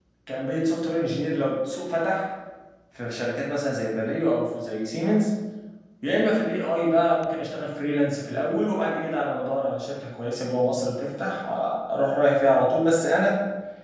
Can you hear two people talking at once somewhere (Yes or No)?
No